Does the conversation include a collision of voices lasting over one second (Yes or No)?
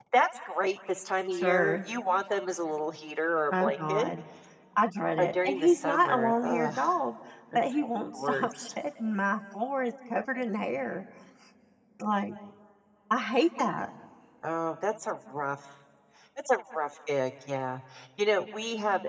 Yes